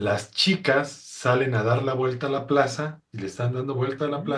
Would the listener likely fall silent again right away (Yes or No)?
Yes